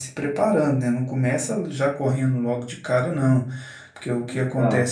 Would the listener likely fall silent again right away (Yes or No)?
Yes